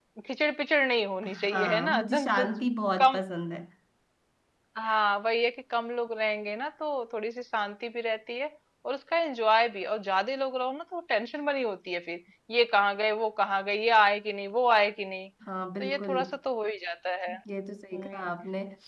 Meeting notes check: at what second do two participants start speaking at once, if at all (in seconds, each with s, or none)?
1.2 s